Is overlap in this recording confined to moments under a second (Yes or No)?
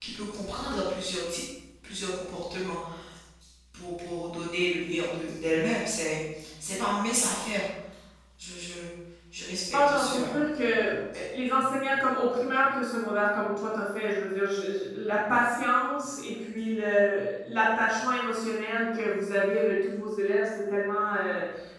Yes